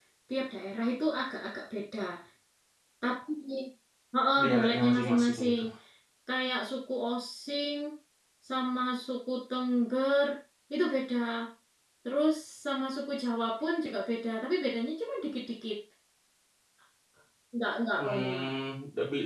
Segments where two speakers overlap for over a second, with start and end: 4.4-5.6

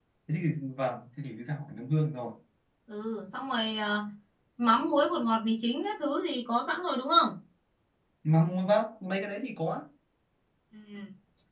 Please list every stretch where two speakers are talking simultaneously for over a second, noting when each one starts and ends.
none

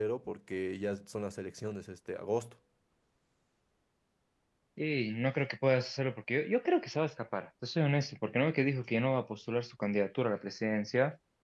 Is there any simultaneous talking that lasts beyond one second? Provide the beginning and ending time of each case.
none

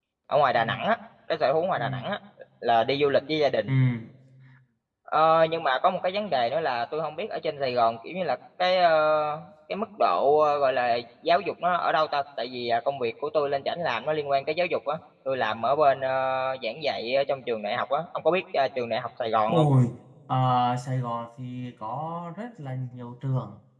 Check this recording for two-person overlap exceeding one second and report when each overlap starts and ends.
none

